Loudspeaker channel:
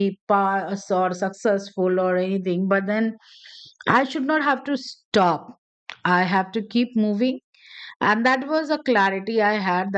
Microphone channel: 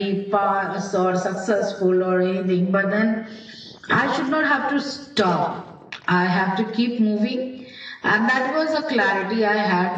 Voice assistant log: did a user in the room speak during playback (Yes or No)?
No